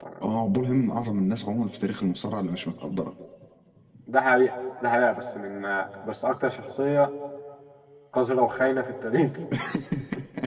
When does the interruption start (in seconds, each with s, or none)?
none